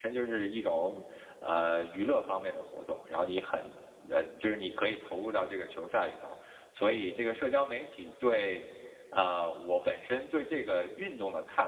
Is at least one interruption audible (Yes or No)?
No